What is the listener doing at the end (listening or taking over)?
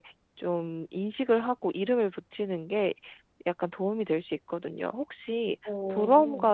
listening